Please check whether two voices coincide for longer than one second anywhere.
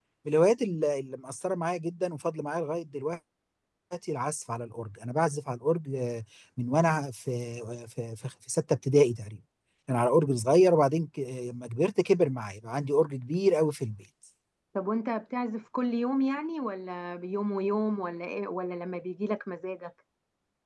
No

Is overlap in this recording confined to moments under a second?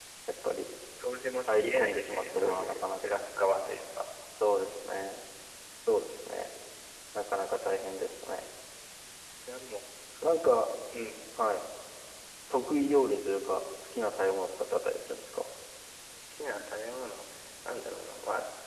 No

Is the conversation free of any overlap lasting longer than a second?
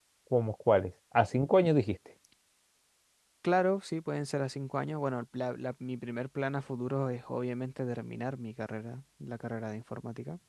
Yes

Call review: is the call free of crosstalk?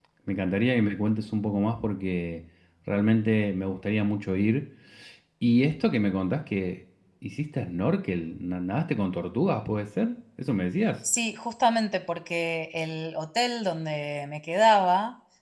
Yes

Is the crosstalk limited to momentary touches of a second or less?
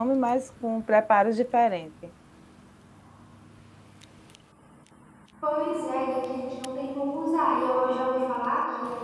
Yes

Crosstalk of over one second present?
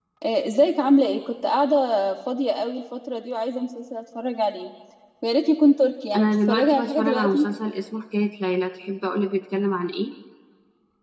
Yes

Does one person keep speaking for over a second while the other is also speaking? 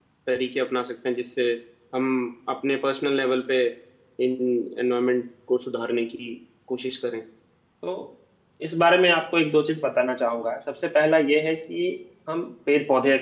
No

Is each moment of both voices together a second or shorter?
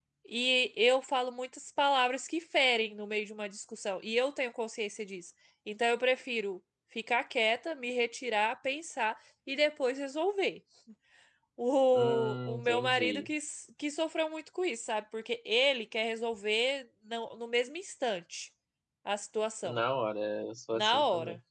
No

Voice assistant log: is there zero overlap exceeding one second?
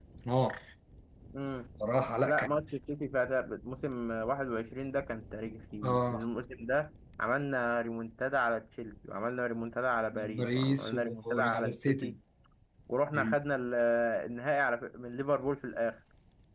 No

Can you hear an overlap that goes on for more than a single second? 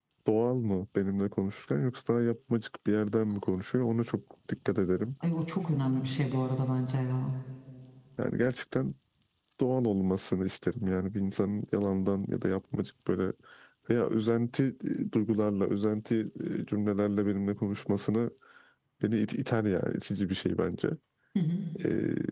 No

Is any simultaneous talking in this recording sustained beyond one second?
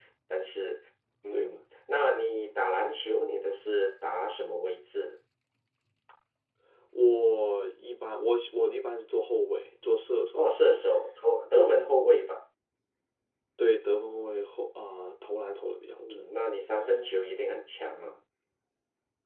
No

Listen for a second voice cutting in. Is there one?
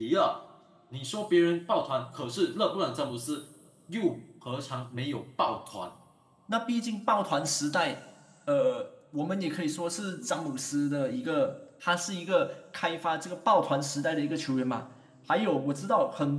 No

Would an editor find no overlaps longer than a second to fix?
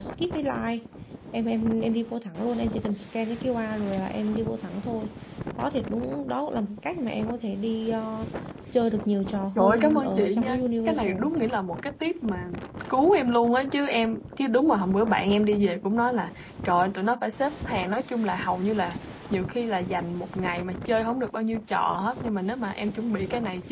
No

